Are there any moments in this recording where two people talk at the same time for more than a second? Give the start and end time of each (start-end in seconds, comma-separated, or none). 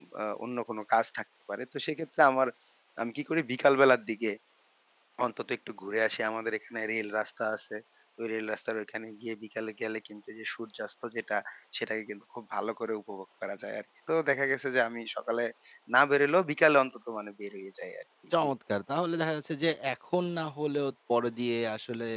none